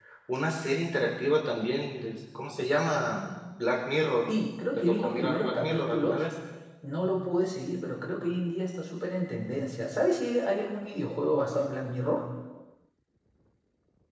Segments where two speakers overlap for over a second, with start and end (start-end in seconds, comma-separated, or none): 4.8-6.2